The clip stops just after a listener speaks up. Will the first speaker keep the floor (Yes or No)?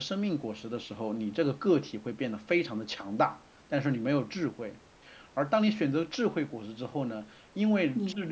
Yes